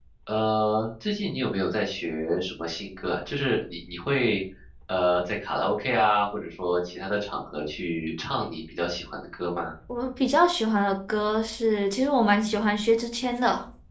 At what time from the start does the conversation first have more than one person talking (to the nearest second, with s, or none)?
none